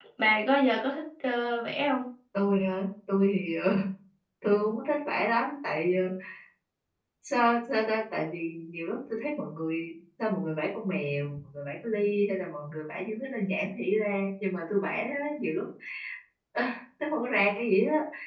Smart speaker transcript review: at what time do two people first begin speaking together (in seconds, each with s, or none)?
none